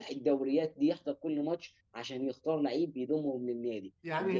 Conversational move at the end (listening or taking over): taking over